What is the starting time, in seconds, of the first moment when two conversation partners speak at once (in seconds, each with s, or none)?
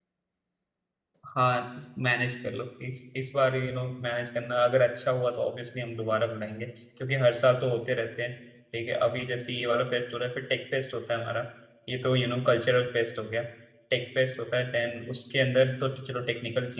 none